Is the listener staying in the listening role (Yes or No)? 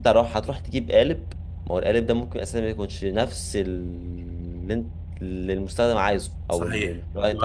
No